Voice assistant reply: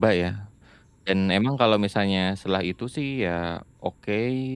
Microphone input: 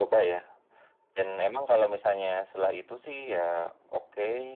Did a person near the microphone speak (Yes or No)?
No